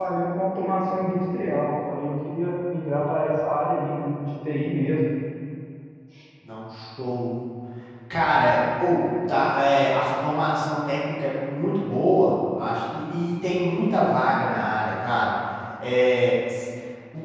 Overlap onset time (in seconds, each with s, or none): none